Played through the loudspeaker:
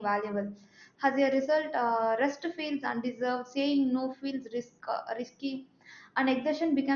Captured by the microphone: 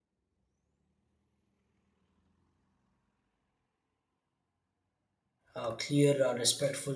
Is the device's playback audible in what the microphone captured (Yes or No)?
No